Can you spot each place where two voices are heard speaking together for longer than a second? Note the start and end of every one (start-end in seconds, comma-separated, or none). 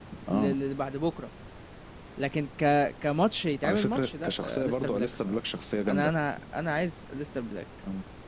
3.6-5.4